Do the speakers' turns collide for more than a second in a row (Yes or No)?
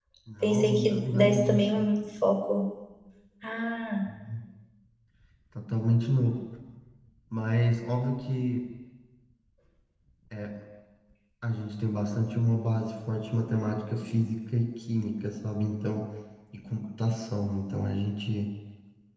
Yes